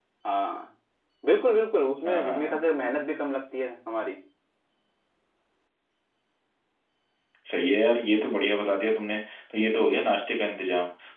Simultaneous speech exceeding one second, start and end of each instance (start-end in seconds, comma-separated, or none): none